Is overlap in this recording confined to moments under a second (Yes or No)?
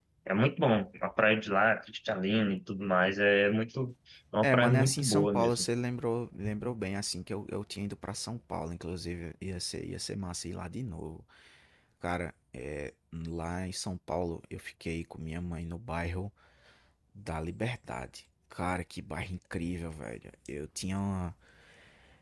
No